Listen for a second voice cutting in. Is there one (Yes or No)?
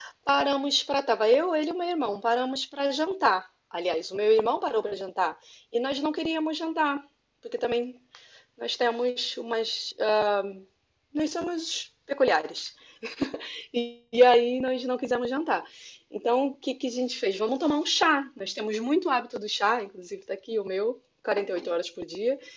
No